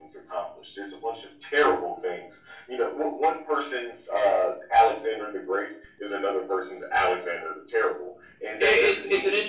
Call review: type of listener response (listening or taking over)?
taking over